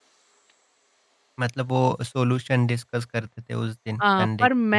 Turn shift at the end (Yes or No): Yes